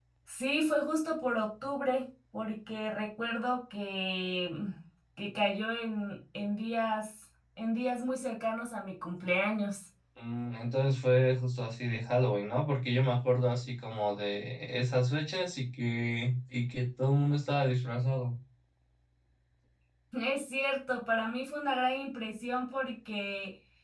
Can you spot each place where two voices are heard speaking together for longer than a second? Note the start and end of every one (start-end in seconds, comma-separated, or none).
none